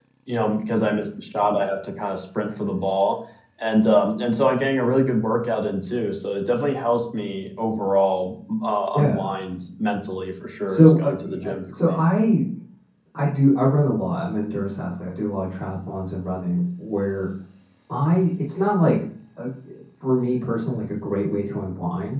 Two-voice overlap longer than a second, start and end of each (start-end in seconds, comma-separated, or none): 10.7-12.0